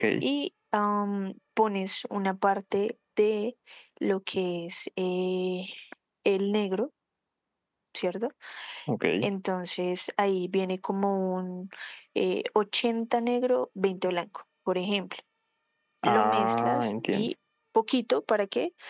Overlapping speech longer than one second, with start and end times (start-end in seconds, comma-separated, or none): 16.0-17.3